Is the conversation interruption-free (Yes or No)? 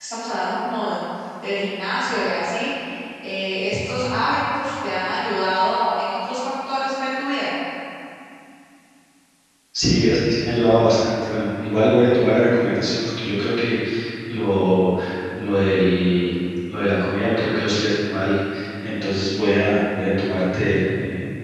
Yes